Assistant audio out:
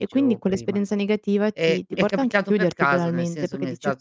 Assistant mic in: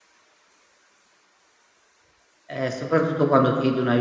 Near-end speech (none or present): present